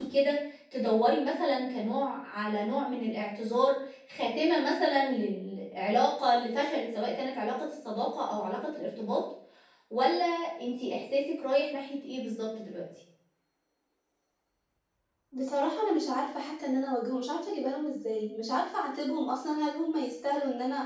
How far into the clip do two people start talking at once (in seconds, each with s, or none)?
none